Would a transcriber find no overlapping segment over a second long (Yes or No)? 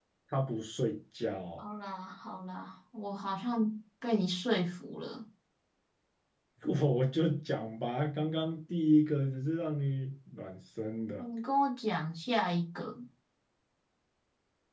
Yes